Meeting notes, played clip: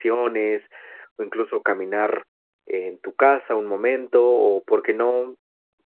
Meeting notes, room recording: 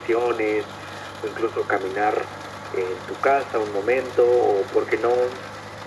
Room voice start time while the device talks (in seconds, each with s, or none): none